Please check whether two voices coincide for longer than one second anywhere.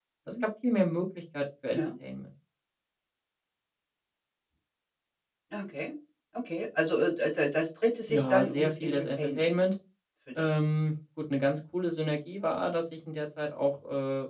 Yes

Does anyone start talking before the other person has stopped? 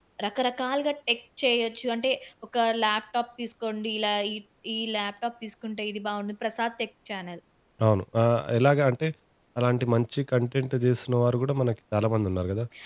No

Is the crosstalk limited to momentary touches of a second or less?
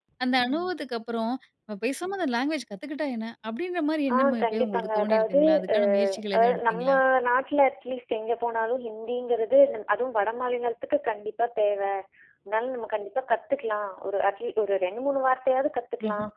No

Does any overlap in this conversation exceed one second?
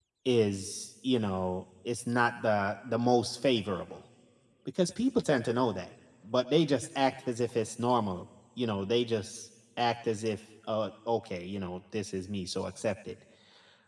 No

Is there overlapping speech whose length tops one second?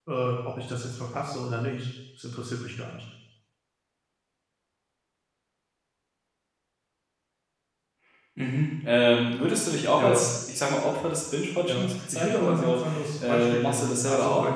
Yes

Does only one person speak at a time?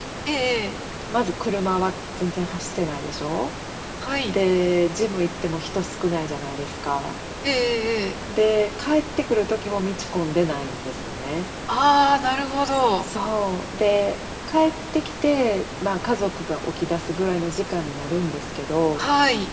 Yes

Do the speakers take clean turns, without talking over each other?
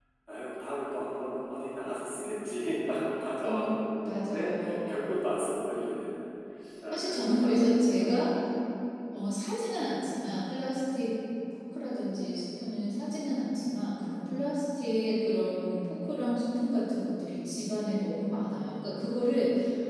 No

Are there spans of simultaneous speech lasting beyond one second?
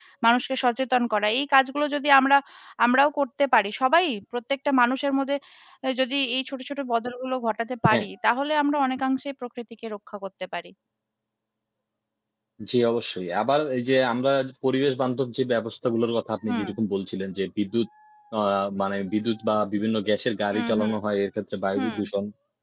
No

